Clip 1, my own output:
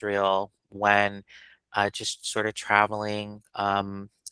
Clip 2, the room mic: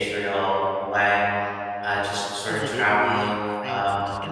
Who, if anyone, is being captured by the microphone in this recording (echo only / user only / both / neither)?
both